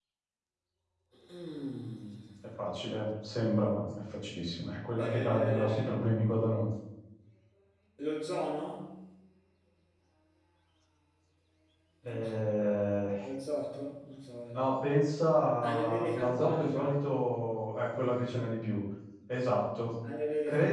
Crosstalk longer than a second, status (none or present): present